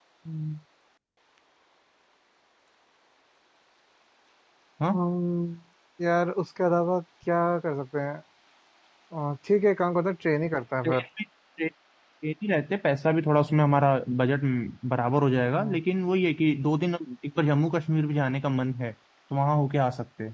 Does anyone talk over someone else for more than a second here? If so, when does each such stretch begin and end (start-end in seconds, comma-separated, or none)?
none